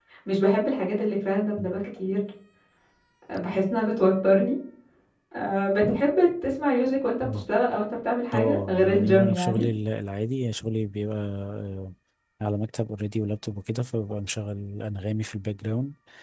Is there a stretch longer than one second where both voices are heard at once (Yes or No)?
Yes